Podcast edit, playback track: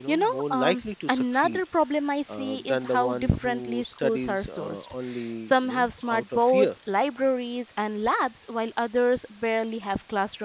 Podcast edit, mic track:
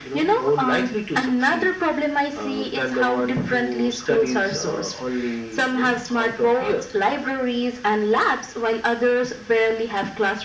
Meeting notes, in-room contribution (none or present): none